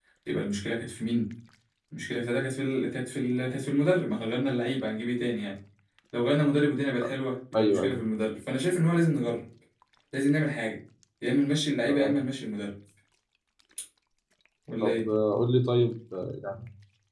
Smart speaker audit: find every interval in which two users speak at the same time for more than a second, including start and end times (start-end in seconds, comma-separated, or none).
none